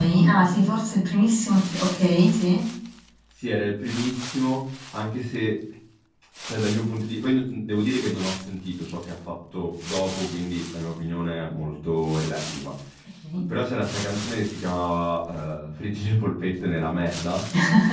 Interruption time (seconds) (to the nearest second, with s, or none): none